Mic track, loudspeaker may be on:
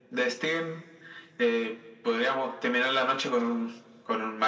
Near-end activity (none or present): none